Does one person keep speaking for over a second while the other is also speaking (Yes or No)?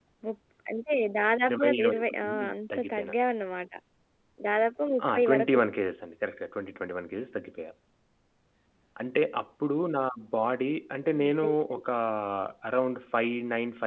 Yes